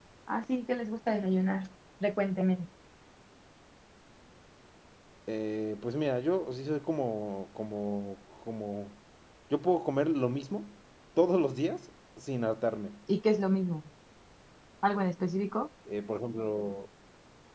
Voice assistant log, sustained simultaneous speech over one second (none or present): none